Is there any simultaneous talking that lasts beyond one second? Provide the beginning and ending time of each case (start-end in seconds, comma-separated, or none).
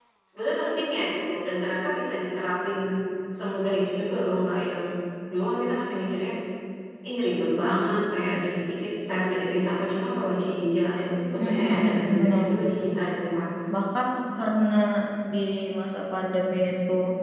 11.4-13.0